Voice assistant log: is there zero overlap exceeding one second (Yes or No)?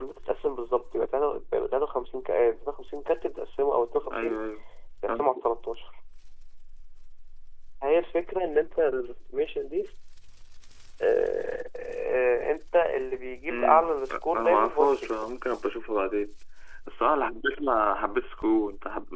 No